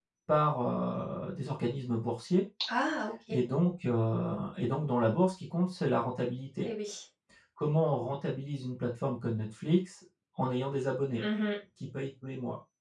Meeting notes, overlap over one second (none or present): none